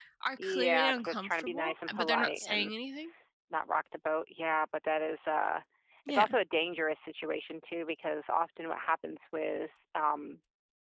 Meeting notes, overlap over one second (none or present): present